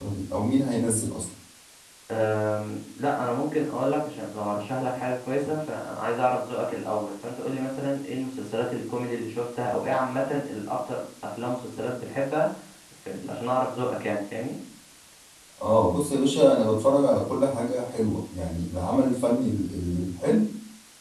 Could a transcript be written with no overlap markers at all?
Yes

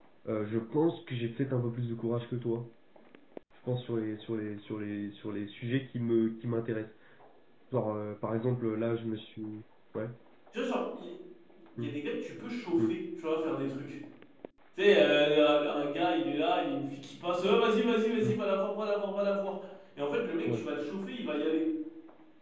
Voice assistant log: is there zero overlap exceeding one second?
Yes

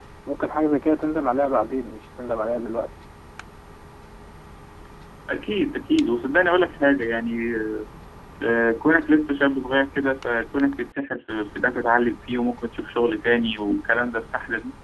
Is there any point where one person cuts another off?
No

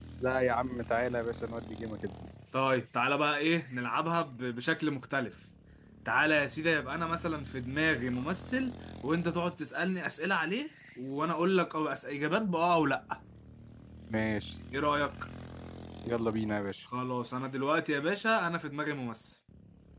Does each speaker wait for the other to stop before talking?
Yes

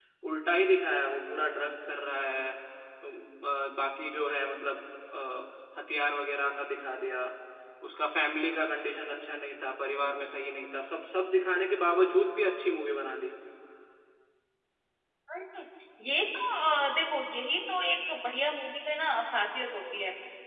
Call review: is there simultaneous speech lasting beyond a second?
No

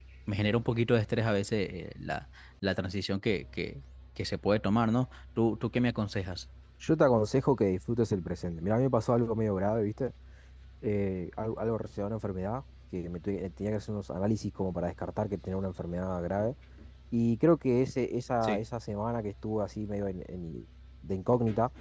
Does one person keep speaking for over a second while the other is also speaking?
No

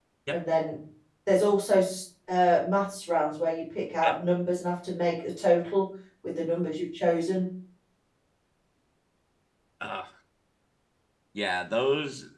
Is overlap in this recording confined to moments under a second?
Yes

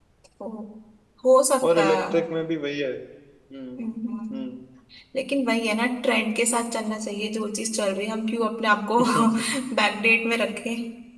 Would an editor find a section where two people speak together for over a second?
No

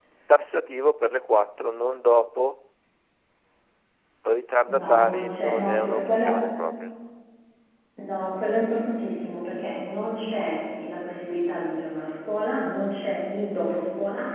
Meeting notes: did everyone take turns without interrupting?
No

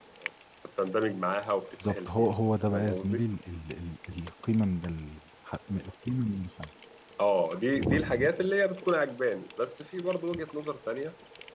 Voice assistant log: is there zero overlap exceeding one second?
Yes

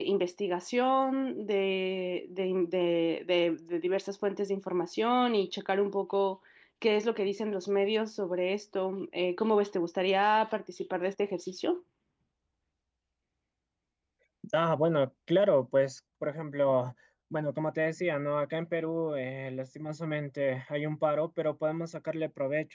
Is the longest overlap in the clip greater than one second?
No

